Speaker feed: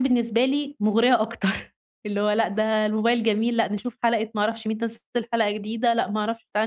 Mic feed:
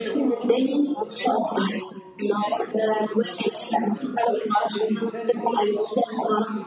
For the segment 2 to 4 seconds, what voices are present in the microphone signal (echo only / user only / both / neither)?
both